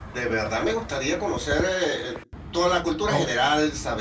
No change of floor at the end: Yes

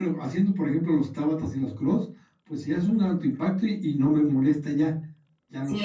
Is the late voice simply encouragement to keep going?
No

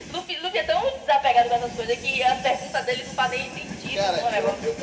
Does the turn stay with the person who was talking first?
No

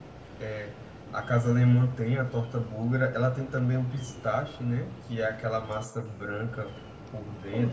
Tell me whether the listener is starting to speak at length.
Yes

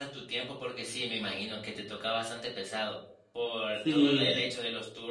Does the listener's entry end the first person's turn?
No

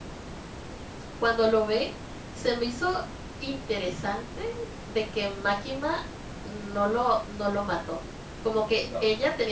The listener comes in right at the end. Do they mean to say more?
No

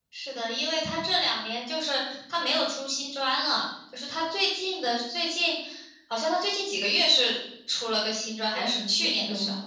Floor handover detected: Yes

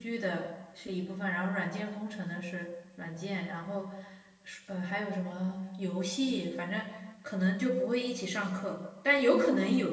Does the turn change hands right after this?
No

